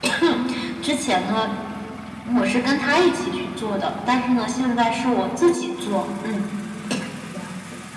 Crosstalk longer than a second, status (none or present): none